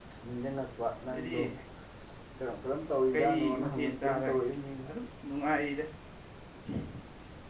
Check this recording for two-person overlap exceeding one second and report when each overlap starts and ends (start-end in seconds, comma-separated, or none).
3.1-4.4